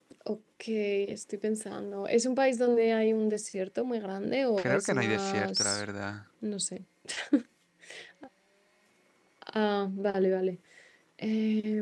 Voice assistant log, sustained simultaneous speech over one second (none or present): present